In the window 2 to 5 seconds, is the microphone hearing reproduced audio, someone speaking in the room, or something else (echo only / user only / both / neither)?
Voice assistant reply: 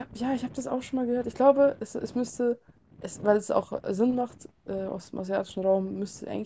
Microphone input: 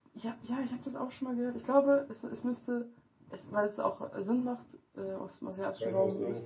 echo only